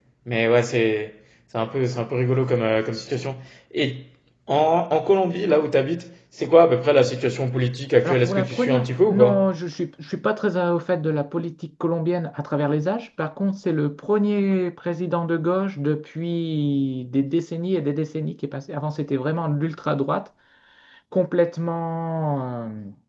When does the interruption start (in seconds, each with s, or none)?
8.0 s